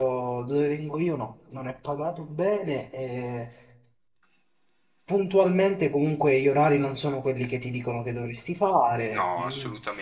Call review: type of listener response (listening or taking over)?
taking over